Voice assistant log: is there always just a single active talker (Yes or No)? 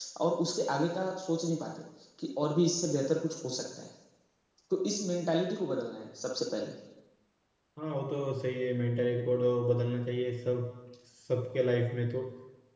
Yes